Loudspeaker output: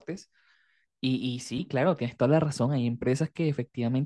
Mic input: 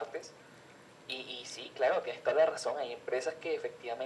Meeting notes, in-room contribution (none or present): none